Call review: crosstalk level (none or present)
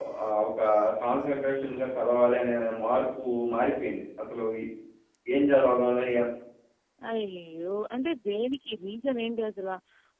none